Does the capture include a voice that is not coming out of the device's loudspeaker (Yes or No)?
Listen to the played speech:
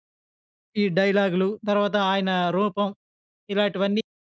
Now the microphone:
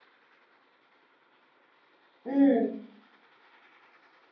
Yes